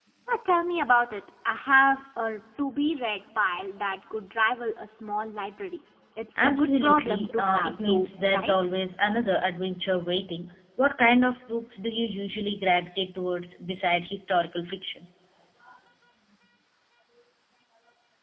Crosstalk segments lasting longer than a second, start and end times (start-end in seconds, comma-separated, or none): 6.4-8.5